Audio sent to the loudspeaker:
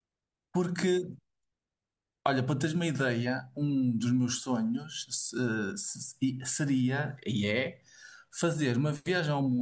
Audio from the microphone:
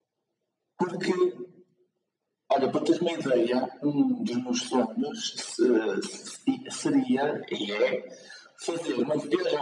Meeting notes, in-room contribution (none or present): none